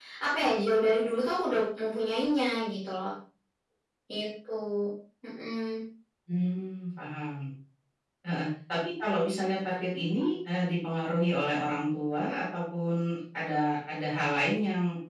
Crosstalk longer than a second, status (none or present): none